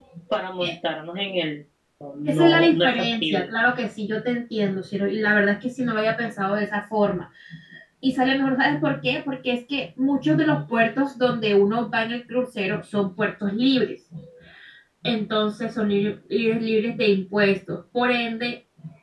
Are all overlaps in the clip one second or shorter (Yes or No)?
No